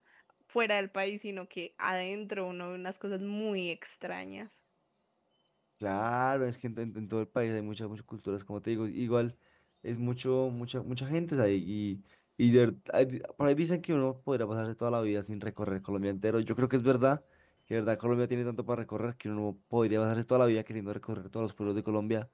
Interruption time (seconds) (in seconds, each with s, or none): none